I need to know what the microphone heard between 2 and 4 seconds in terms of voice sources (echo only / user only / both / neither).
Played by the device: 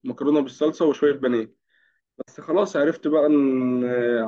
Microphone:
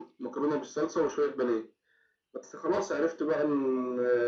echo only